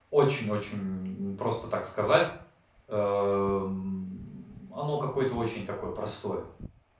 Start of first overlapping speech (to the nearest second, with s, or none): none